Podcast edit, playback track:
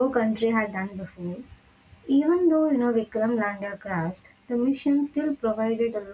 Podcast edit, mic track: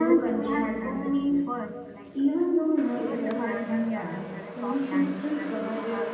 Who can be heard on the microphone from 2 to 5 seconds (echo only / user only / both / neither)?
both